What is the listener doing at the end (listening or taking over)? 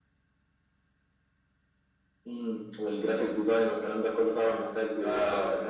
taking over